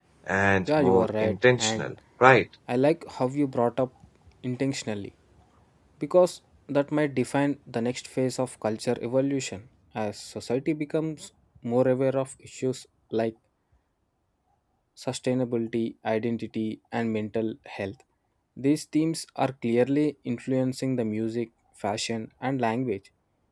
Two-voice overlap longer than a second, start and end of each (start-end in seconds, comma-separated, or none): 0.7-1.9